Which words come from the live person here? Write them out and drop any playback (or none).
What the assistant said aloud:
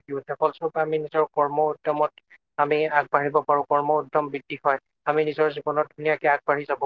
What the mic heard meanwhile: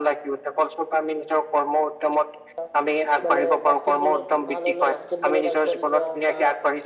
অ', মানে বাস্কেটবলত ভাল হলে বাস্কেটবলত আগবাঢ়ি যোৱা বা